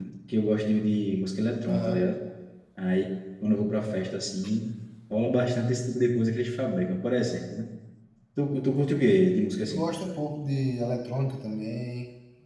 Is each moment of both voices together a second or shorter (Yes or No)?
Yes